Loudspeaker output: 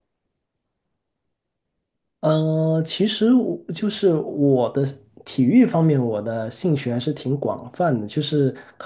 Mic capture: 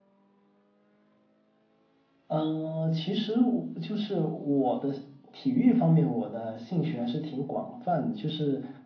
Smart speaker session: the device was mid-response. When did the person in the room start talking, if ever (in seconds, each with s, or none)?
none